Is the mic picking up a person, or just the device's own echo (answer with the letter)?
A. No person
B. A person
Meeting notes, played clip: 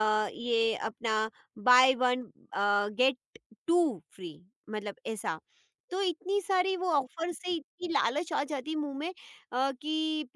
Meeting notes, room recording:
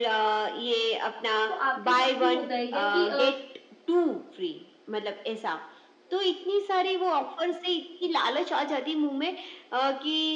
B